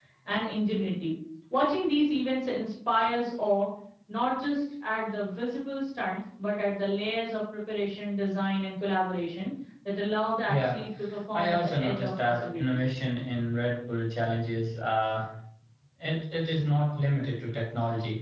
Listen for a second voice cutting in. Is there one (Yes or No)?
Yes